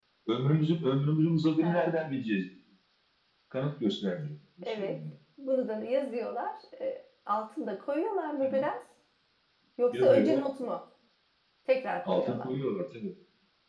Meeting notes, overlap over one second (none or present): none